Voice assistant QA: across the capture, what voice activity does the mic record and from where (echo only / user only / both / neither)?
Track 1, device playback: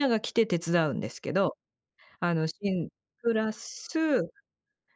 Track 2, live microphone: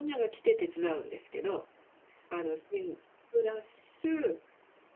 echo only